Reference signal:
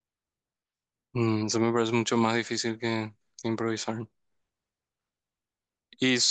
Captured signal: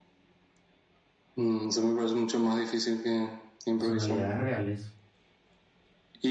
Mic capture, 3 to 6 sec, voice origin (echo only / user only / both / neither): both